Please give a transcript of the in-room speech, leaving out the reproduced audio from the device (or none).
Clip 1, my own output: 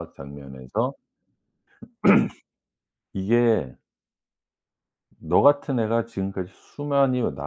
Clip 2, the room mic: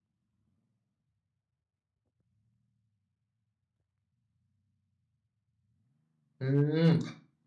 음.